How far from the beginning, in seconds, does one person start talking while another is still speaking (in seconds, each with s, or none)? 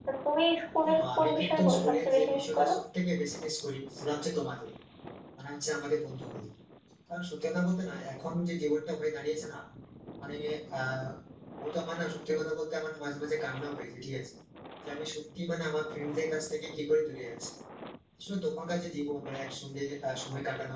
0.8 s